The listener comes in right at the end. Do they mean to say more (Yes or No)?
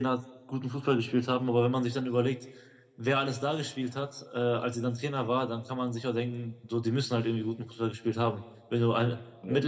No